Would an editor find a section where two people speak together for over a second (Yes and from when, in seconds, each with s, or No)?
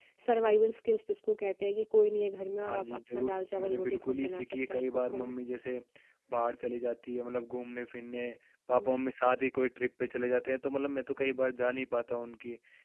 Yes, from 2.7 s